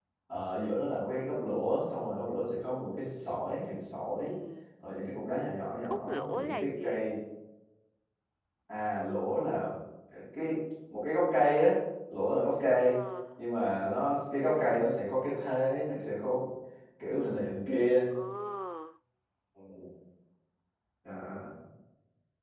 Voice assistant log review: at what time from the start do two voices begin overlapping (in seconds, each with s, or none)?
5.8 s